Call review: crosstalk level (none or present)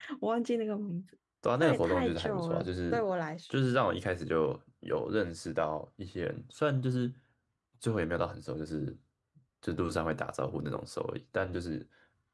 present